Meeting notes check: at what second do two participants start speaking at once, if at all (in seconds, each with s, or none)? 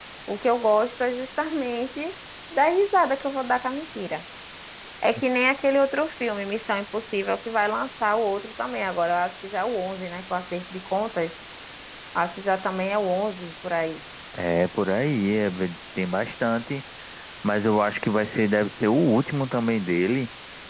none